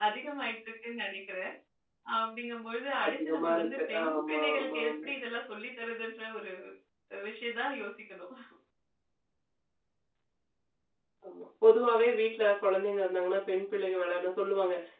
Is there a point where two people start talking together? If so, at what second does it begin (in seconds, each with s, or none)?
3.0 s